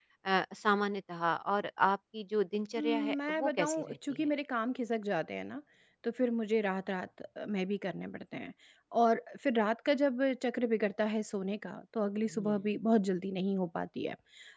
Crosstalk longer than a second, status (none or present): present